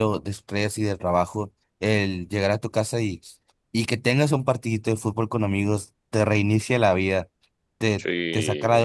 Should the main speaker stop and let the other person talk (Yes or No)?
No